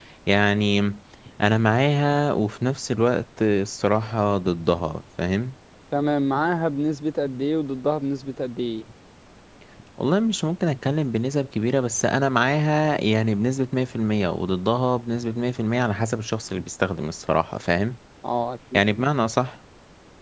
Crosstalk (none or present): none